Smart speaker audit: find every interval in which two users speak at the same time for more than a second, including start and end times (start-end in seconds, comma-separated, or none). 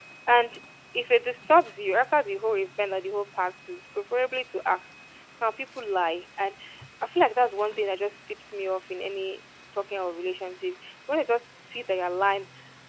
none